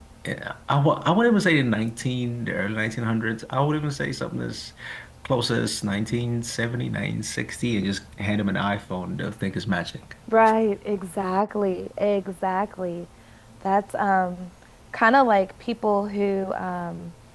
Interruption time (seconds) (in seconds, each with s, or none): none